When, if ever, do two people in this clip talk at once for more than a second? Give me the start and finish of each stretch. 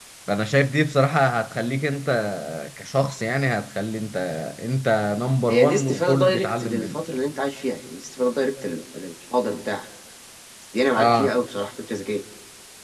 5.5-7.0

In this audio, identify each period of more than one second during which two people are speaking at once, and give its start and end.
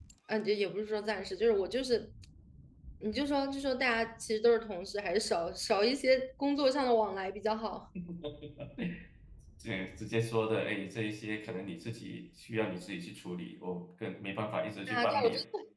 none

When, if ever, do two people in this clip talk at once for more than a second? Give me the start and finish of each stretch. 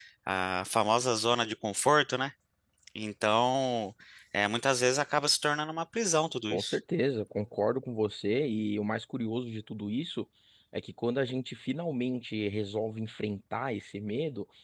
none

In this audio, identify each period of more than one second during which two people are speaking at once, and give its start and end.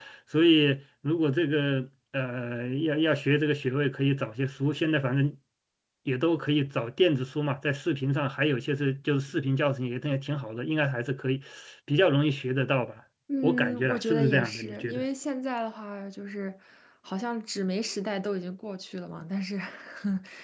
13.4-15.0

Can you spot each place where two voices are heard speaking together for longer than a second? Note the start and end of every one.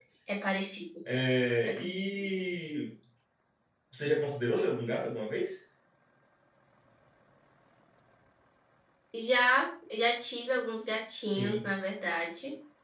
none

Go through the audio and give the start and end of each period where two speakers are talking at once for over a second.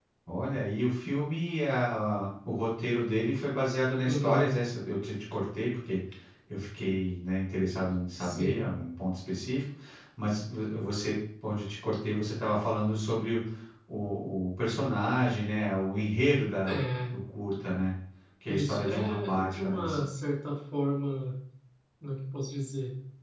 18.5-20.0

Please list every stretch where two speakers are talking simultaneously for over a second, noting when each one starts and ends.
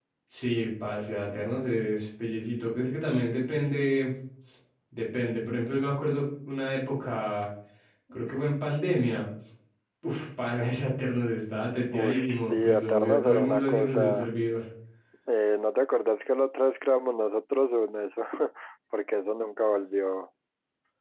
12.0-14.3

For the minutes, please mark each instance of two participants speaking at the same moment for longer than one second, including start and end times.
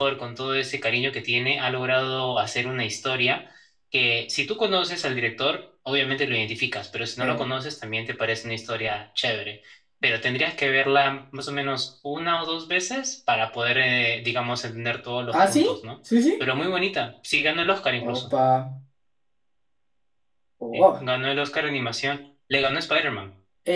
none

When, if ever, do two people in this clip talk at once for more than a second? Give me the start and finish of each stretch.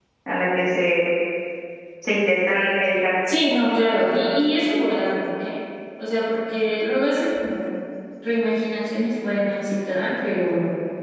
none

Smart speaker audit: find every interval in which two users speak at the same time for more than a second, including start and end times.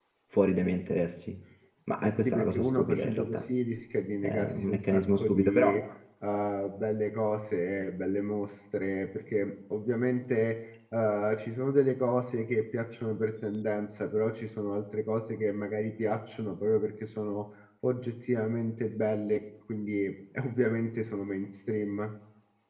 2.0-3.5, 4.2-5.7

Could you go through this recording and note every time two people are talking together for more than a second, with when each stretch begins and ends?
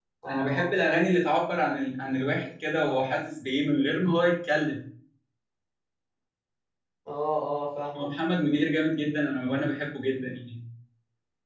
none

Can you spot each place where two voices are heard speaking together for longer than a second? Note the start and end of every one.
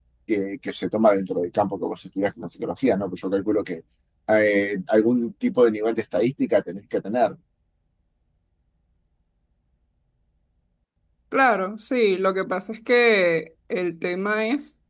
none

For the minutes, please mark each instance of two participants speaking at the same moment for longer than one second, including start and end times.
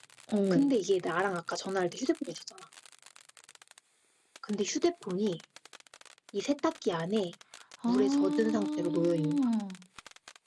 7.8-9.4

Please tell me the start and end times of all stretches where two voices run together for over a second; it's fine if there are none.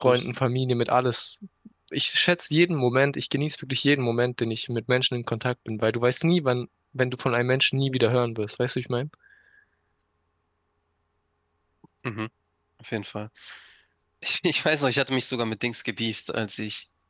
none

